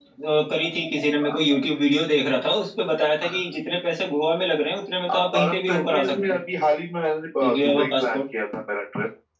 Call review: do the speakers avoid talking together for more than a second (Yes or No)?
No